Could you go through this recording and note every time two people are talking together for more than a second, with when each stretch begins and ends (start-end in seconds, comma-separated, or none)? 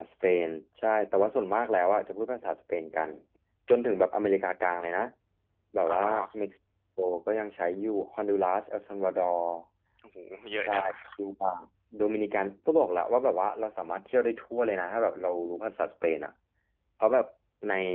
none